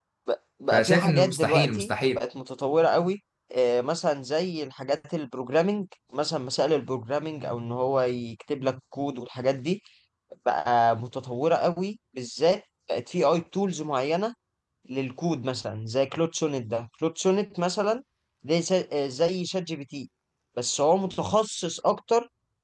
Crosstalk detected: Yes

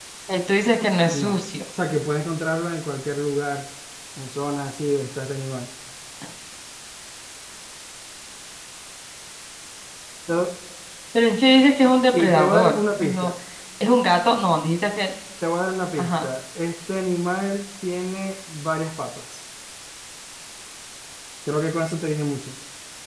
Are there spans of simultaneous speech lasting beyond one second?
Yes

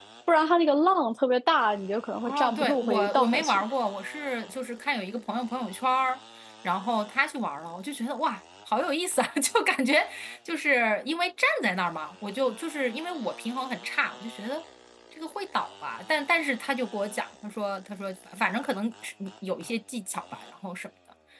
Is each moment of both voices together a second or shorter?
No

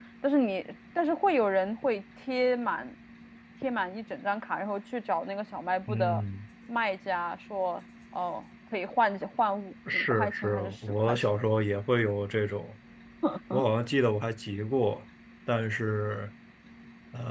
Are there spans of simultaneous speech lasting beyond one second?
Yes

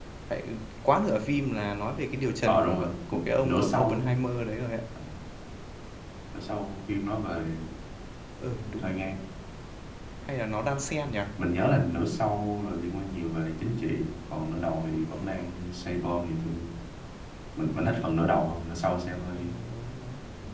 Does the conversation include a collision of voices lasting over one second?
Yes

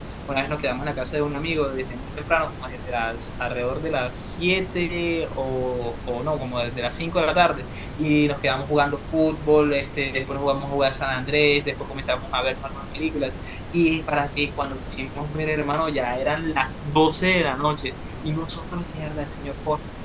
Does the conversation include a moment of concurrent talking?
No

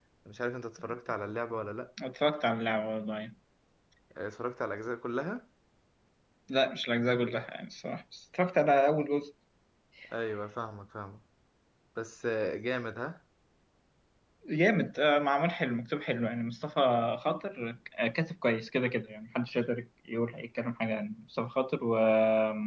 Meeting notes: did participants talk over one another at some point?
No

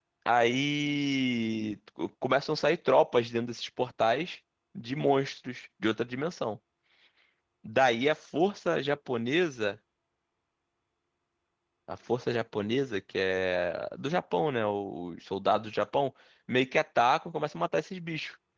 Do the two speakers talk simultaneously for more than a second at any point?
No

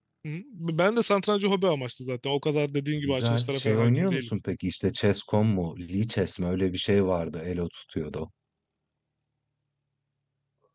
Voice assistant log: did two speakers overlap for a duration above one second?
Yes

